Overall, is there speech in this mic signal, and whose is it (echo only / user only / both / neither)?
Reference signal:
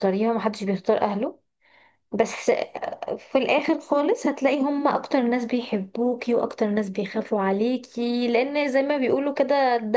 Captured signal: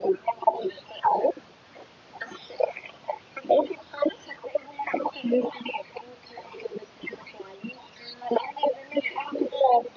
echo only